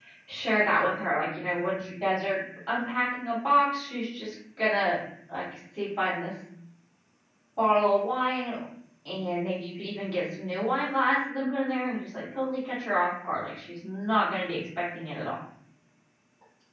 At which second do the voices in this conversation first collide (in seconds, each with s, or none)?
none